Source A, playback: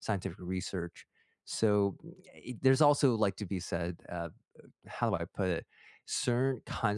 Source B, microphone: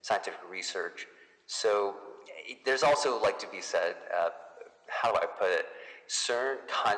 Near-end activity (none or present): none